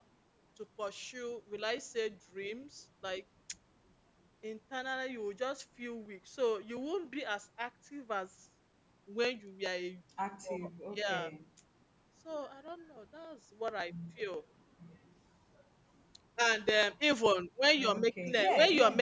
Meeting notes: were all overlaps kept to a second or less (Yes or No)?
No